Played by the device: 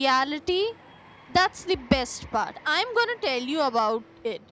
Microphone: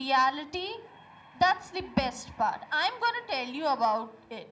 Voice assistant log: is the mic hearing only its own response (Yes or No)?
Yes